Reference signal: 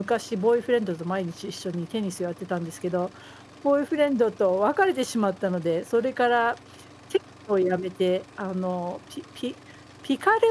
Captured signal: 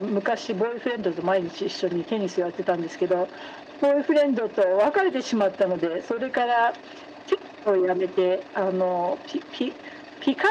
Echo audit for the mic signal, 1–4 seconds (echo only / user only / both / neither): echo only